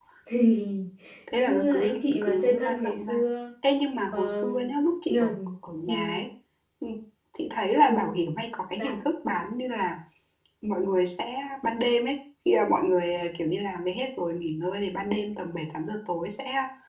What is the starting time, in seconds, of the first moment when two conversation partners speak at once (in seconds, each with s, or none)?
1.3 s